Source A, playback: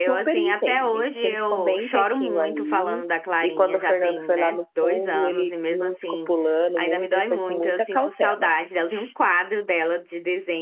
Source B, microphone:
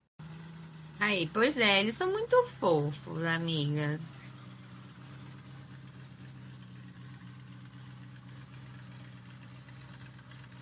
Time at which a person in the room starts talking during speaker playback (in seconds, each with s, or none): 1.0 s